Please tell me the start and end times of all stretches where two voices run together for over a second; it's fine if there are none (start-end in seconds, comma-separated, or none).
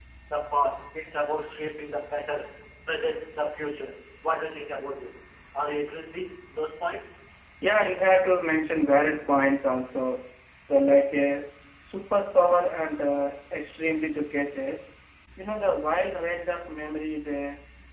none